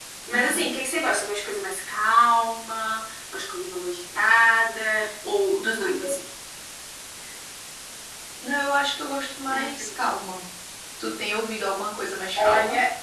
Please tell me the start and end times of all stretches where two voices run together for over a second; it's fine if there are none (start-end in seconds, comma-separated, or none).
none